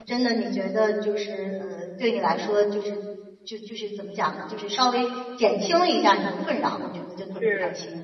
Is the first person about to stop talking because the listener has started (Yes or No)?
Yes